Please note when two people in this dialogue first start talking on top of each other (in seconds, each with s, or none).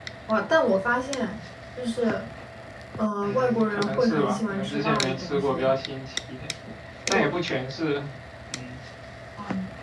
3.2 s